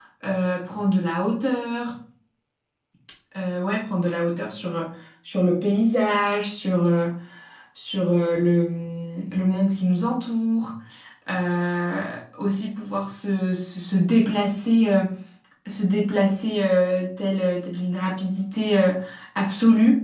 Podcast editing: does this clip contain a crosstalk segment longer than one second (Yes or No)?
No